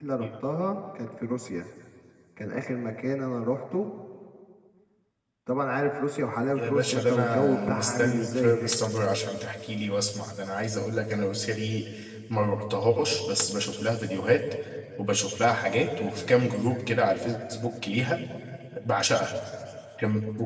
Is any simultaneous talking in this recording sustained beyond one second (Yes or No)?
Yes